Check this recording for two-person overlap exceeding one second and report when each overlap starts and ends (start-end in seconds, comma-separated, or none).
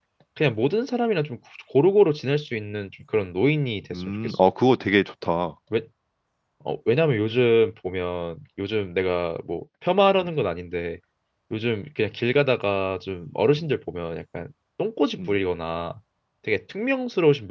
none